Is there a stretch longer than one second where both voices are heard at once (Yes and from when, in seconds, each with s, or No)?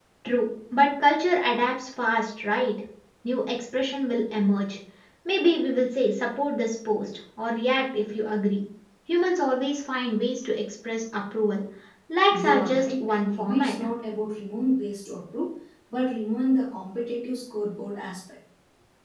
Yes, from 12.3 s